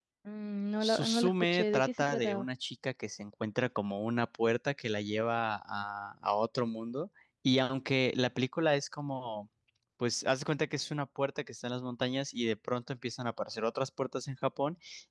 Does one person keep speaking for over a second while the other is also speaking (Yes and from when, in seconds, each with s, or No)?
Yes, from 0.8 s